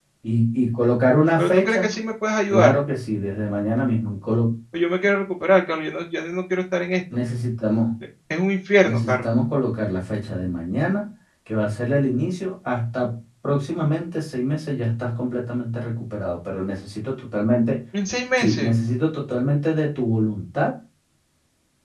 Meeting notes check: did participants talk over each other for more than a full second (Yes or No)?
No